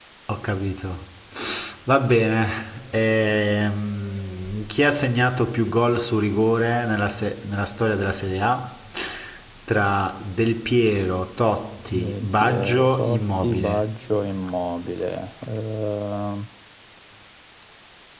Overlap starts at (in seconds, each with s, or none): 11.9 s